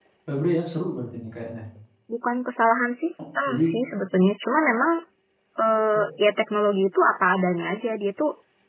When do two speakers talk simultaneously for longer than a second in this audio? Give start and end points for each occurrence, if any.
none

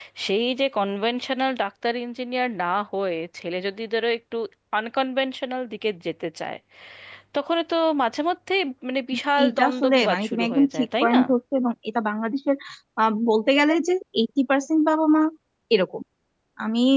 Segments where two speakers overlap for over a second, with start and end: 9.4-11.2

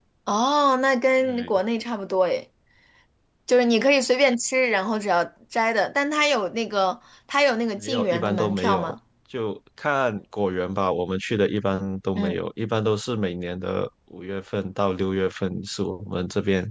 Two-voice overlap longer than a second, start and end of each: 7.8-8.9

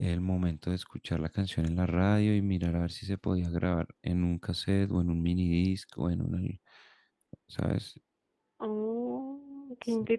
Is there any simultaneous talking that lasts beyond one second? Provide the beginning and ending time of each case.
none

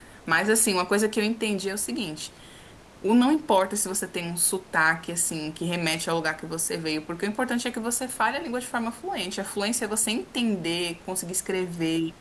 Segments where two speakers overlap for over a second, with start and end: none

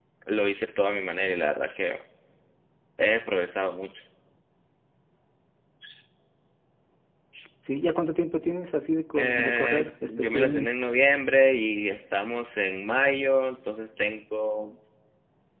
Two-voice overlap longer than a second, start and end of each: 9.2-10.8

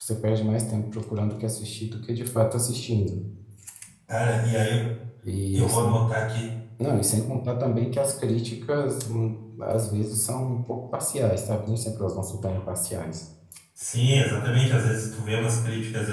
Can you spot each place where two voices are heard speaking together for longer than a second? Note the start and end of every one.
none

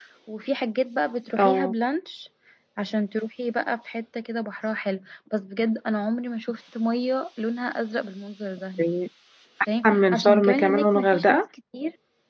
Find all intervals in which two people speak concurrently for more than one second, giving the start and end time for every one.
9.8-11.4

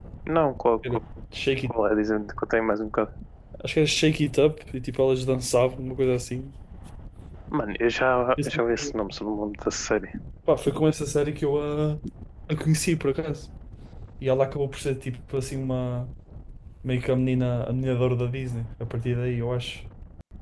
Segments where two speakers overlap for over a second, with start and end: none

